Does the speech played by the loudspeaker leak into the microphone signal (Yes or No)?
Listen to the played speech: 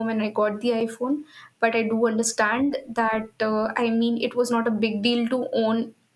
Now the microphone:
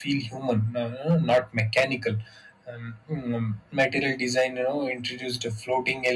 No